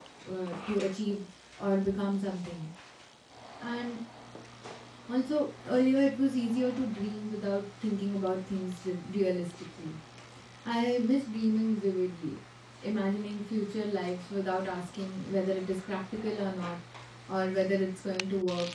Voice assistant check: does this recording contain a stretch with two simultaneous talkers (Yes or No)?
No